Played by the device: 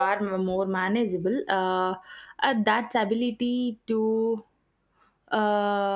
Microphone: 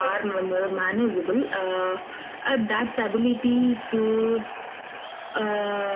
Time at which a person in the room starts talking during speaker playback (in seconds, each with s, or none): none